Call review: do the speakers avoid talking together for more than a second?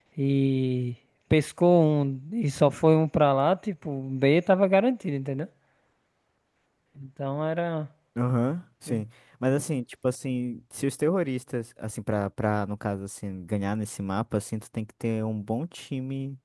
Yes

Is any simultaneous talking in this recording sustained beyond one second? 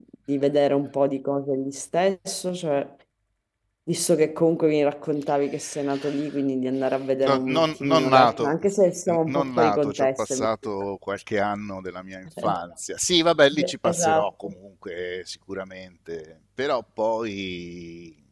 Yes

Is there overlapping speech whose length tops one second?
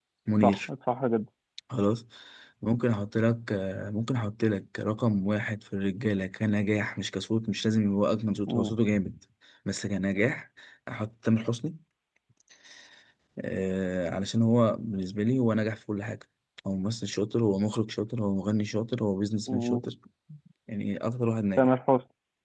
No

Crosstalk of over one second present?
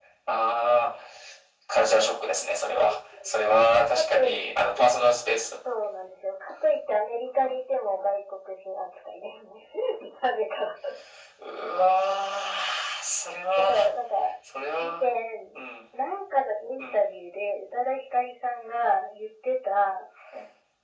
No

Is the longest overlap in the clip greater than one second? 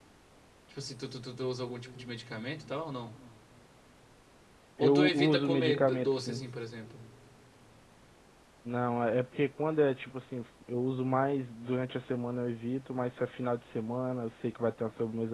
Yes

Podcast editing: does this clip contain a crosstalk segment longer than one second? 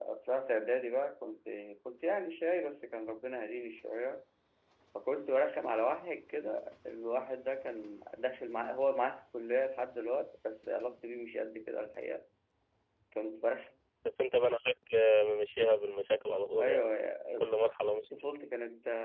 No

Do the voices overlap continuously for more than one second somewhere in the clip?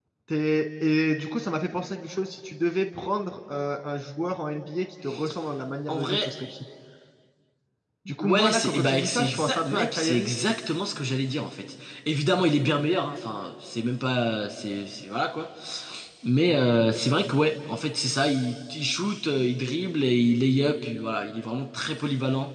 Yes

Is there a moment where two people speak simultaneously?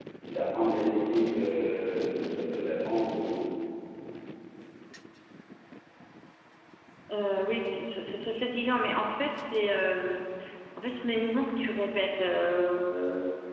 No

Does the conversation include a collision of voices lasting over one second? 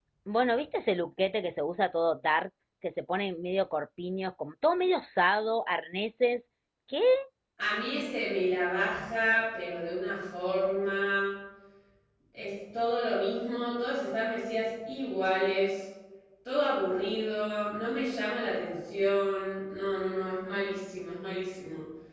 No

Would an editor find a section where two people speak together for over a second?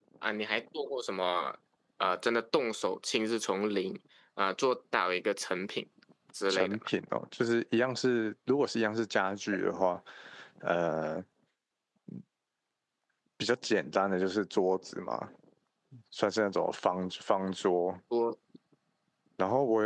No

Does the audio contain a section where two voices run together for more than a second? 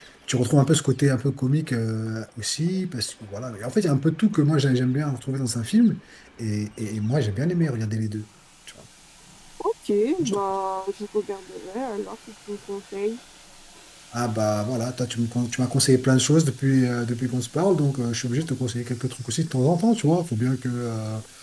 No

